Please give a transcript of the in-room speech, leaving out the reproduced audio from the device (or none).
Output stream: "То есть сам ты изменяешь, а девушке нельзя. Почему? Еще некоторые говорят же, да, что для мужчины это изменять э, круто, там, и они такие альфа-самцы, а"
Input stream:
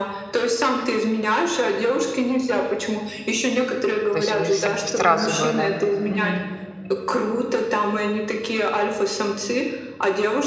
То есть вы ср- сразу бы, да. Мгм.